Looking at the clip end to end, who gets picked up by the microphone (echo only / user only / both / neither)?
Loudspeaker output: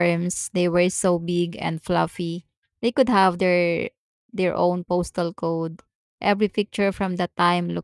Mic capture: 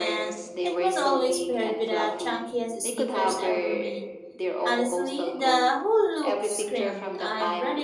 both